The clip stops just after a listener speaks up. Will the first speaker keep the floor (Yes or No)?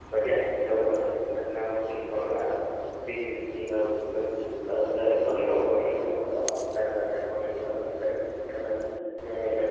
No